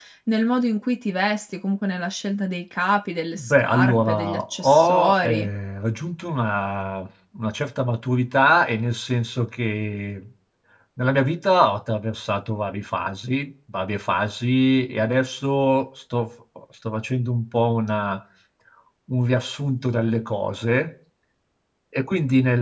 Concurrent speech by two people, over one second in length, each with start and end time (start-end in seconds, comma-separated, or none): 3.3-5.5